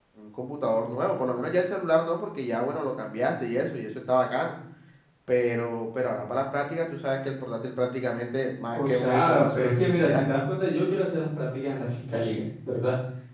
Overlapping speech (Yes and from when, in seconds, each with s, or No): Yes, from 8.7 s